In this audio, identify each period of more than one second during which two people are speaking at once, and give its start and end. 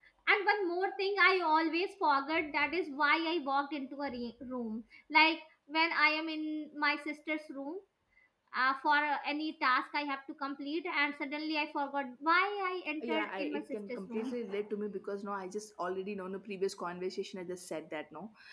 13.0-14.3

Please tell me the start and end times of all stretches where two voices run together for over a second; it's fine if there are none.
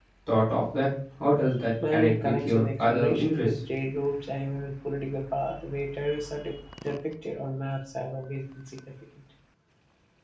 1.8-3.6

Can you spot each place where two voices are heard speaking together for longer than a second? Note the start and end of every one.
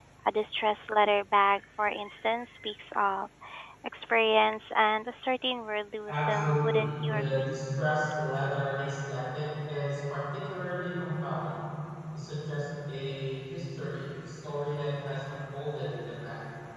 6.1-7.5

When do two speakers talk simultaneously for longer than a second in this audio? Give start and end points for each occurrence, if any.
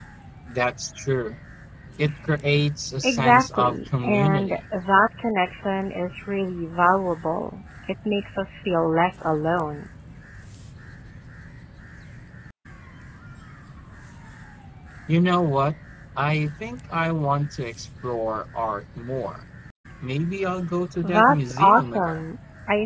3.0-4.6, 21.0-22.2

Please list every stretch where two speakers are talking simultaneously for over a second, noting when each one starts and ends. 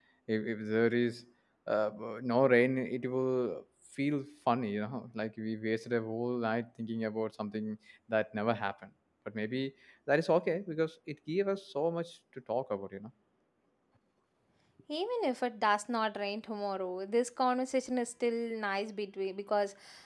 none

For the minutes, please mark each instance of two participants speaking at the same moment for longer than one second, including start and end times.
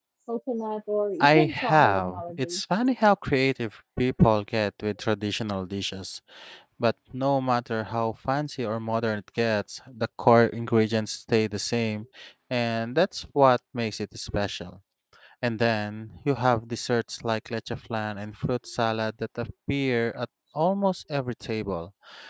1.2-2.6

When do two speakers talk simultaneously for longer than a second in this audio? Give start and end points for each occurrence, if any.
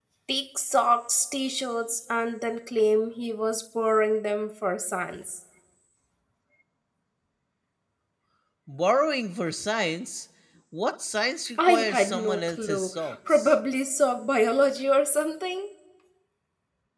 11.7-13.5

